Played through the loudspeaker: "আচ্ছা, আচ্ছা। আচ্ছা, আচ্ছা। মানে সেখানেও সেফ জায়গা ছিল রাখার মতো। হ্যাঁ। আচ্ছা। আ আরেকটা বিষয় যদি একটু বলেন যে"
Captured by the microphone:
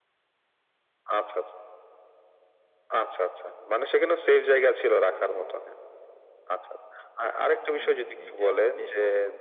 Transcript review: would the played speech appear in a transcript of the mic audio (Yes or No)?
Yes